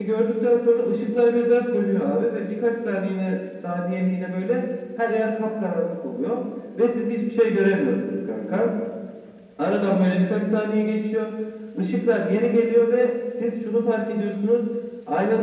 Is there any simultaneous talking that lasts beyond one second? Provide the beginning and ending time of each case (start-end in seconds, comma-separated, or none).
none